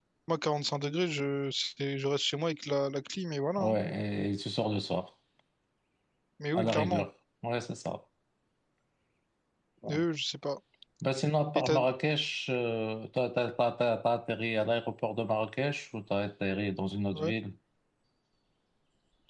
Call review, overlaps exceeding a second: none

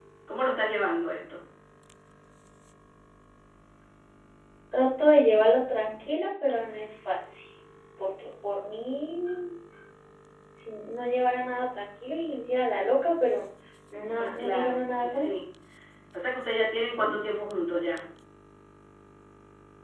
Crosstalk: present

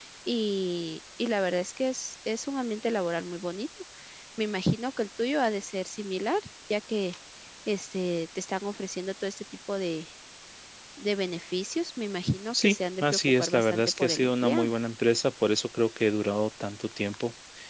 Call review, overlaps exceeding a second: present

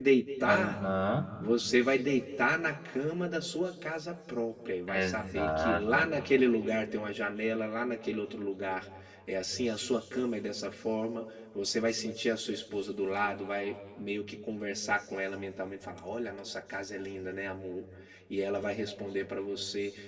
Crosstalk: present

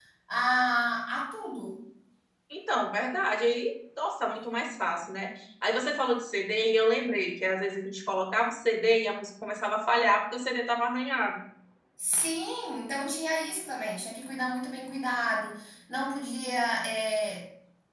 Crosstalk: none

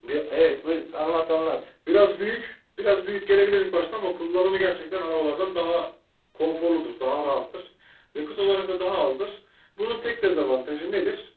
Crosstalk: none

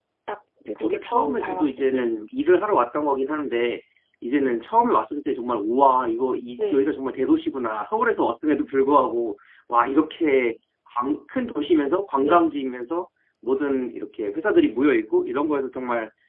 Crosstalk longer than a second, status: present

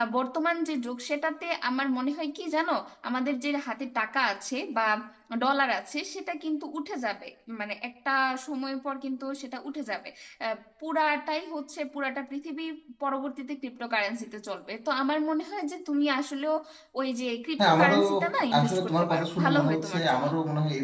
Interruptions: present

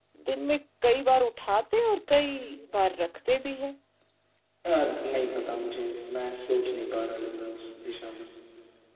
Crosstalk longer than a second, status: none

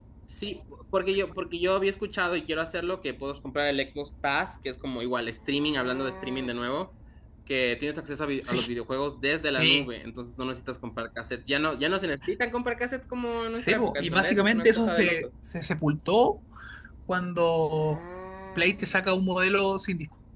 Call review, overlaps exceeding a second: present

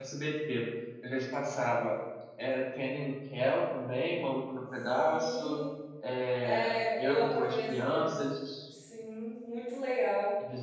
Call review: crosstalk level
present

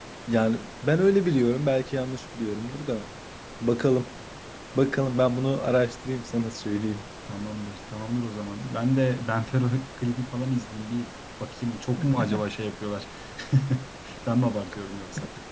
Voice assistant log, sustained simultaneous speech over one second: none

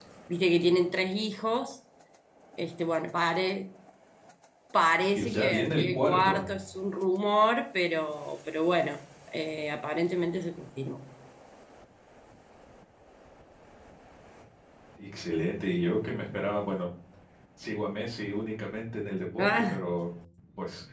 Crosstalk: present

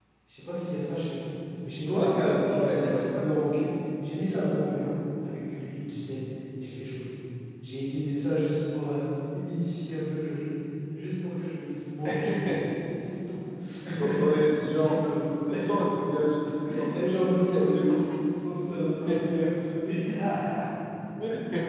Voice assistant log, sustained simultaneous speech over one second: present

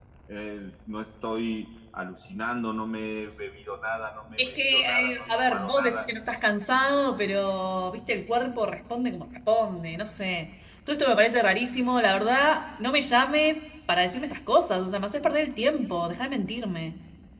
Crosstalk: present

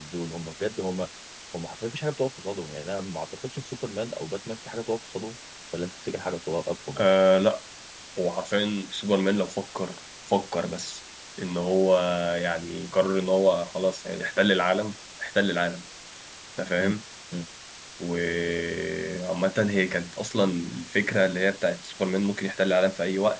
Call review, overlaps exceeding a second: none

